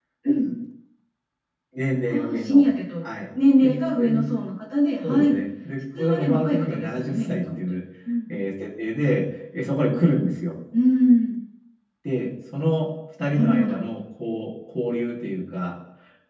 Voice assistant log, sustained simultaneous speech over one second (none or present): present